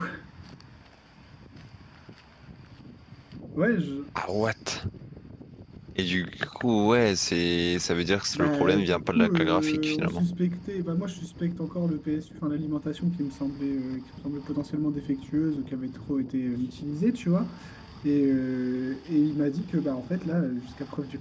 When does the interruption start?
8.3 s

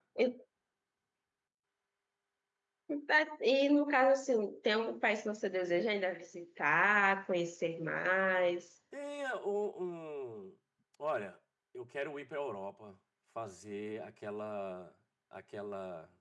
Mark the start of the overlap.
none

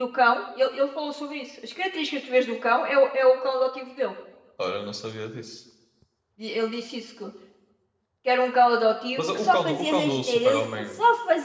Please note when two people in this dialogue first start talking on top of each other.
9.2 s

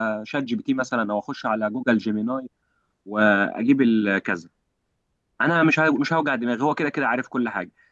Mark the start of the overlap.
none

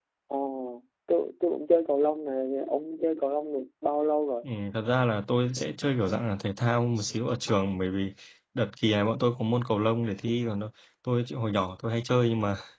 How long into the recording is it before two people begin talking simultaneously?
none

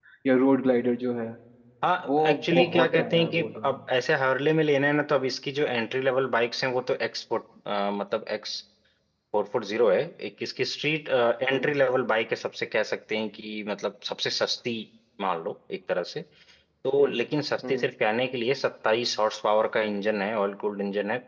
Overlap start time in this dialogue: 2.1 s

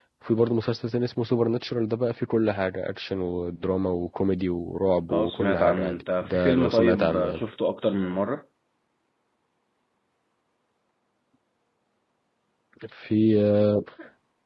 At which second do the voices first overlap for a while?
5.1 s

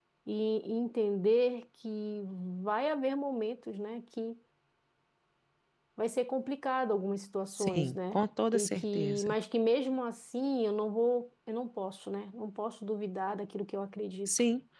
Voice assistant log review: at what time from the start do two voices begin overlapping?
7.5 s

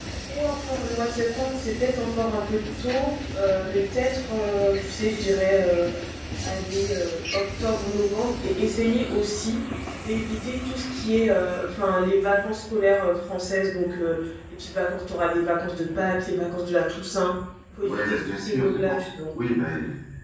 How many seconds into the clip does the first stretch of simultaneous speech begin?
17.8 s

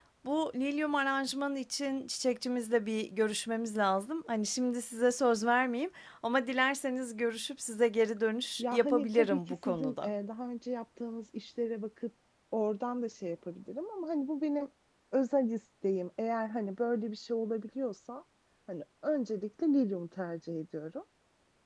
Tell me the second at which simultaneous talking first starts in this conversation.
8.6 s

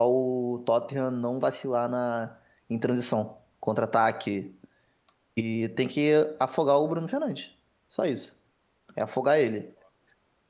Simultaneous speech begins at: none

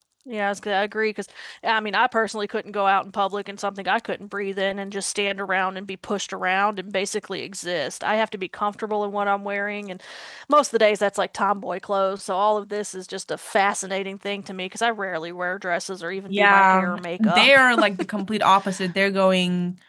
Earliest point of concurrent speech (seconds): 16.3 s

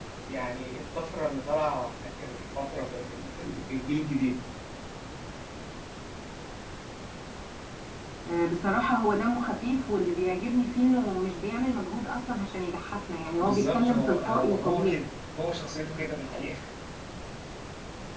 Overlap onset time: 13.4 s

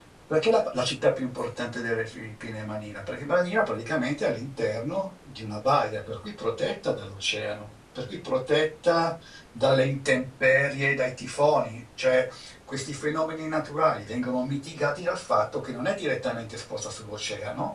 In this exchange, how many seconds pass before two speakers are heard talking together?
none

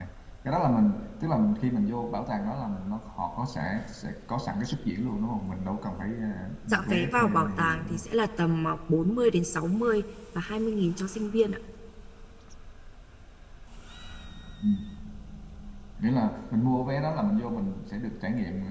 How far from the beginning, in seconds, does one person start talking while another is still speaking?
6.7 s

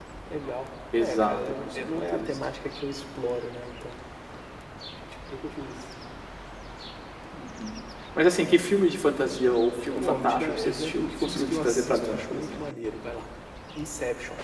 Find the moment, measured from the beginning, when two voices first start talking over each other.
1.0 s

